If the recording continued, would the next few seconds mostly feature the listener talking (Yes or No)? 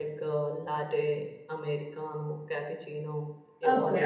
Yes